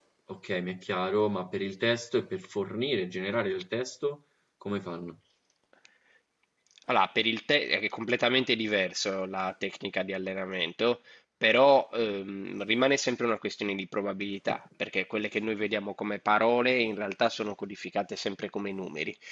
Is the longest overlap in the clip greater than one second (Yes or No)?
No